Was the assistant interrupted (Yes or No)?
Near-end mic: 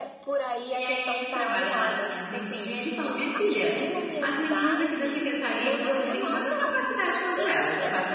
Yes